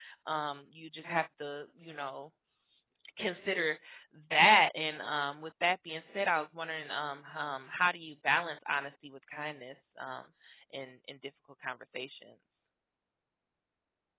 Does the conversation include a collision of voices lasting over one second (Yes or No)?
No